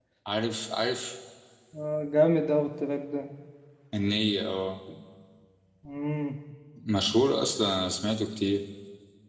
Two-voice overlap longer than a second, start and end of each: none

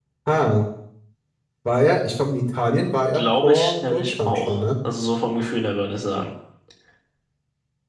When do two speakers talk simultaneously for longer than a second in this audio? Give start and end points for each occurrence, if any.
3.1-4.6

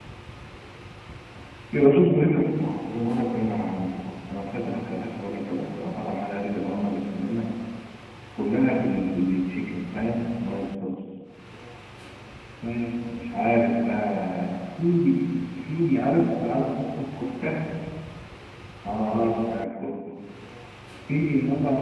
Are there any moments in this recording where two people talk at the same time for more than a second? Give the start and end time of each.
none

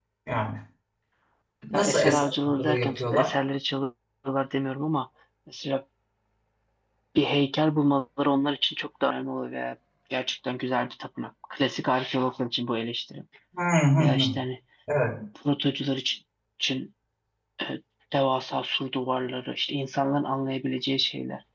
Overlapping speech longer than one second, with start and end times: 1.7-3.3

